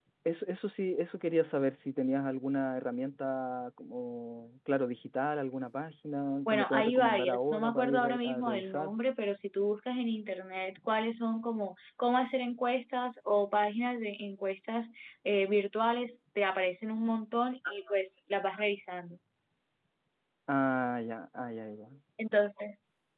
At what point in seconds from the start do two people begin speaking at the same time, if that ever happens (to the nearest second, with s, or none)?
6 s